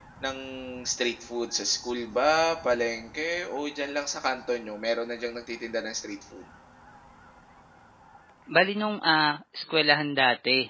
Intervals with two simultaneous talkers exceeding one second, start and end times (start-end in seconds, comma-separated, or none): none